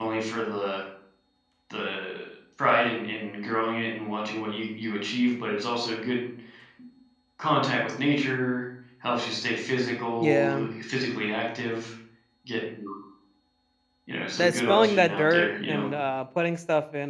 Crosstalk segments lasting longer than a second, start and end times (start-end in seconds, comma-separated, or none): 14.4-15.9